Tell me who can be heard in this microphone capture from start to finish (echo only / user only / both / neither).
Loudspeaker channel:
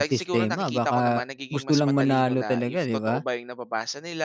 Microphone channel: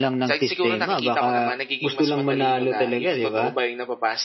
echo only